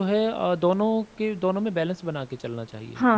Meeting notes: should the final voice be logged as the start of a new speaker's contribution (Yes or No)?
Yes